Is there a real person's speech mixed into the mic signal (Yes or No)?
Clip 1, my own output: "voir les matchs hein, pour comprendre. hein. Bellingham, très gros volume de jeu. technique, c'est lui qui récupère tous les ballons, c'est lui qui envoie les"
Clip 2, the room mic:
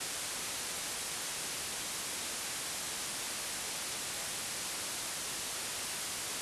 No